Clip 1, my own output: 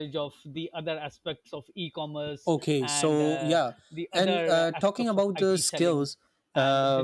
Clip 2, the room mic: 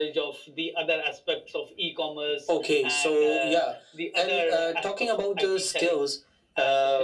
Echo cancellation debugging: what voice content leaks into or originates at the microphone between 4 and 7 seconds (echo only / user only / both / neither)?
echo only